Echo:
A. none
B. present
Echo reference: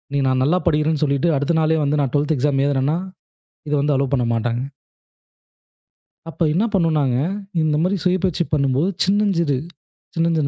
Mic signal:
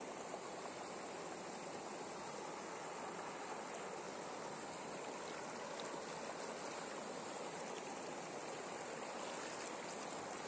A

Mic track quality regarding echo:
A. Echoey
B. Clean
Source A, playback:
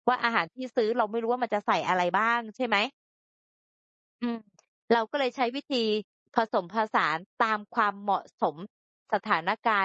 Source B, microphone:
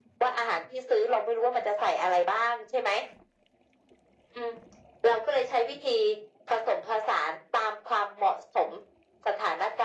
A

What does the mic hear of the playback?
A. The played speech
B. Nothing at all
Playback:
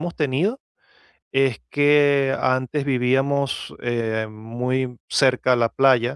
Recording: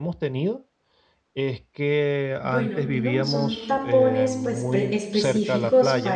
A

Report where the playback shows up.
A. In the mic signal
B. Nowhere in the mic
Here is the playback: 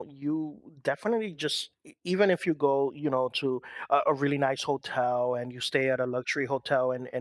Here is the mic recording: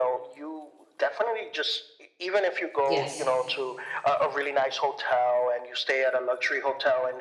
A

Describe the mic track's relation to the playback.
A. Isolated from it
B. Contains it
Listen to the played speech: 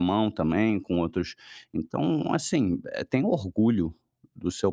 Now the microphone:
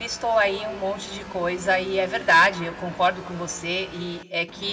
A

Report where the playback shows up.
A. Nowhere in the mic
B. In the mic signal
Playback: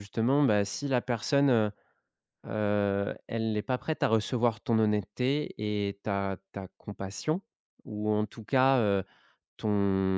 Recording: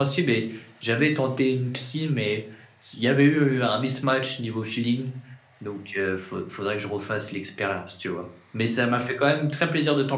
A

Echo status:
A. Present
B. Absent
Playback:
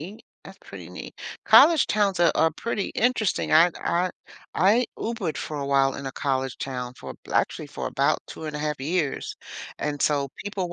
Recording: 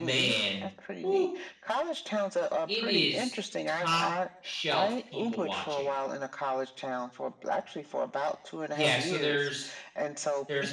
A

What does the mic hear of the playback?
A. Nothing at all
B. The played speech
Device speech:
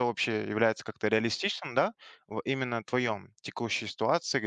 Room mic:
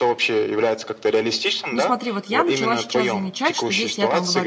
B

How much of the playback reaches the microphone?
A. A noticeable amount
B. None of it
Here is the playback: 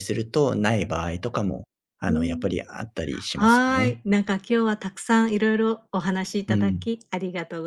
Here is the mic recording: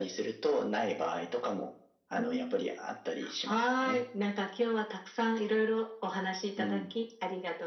A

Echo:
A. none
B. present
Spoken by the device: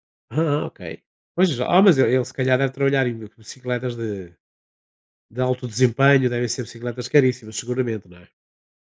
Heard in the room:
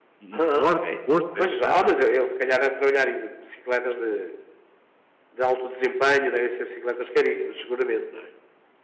B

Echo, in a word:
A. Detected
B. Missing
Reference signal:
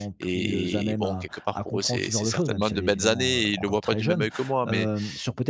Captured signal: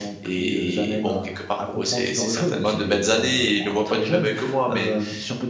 A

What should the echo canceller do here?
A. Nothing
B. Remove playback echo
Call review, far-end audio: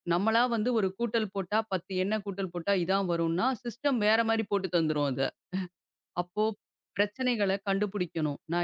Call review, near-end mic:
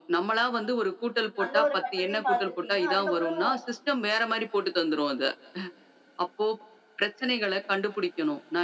B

